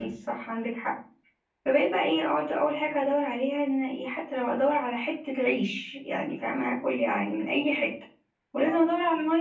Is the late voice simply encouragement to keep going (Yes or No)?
Yes